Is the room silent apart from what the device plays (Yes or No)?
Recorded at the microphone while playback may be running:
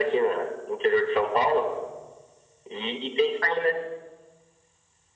Yes